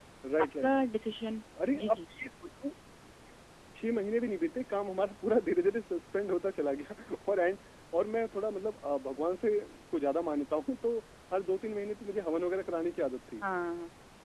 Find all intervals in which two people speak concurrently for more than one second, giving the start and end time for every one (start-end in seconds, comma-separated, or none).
none